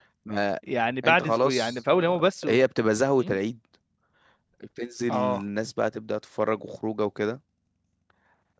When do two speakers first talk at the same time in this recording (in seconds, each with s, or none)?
1.0 s